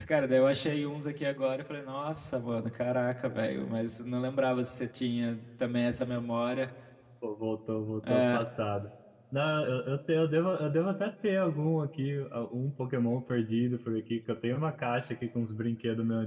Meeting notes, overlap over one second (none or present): none